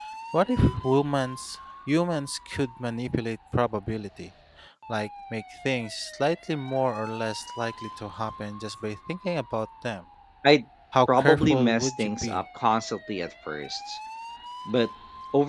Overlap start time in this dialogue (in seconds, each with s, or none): 11.2 s